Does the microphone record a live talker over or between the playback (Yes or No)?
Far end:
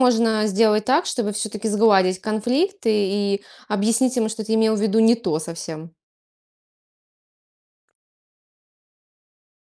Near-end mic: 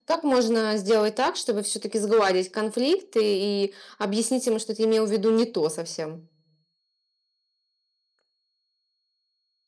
No